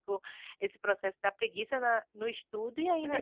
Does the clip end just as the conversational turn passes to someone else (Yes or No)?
Yes